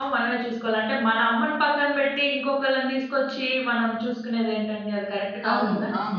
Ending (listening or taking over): taking over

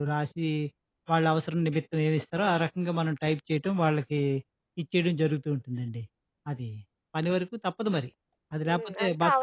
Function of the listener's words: taking over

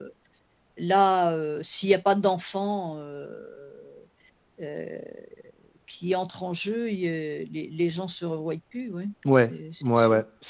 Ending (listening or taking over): taking over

